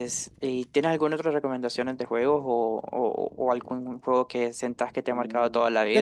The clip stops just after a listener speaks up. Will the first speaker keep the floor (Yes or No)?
No